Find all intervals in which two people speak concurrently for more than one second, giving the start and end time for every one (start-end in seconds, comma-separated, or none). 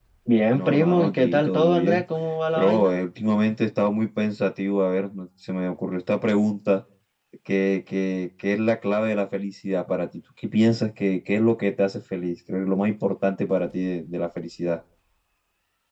0.5-2.0